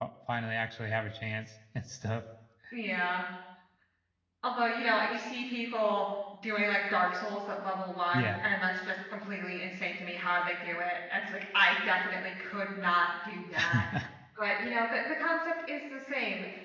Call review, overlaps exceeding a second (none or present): none